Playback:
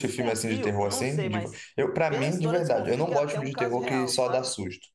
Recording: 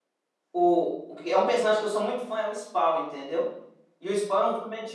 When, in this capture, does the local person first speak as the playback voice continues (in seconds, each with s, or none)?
0.5 s